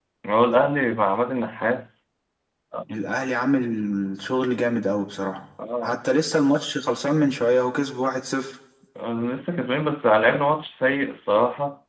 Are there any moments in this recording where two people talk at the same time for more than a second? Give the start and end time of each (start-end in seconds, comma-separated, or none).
none